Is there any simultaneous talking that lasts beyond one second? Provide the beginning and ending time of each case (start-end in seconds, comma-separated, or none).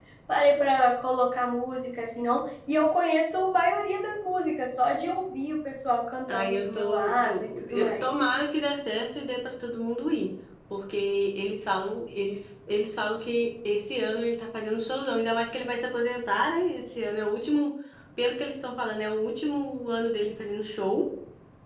6.3-8.0